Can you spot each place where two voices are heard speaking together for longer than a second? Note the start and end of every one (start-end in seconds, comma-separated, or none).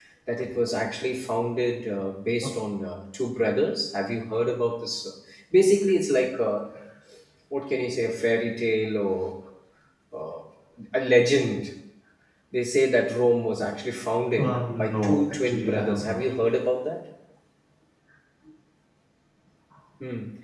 14.4-16.3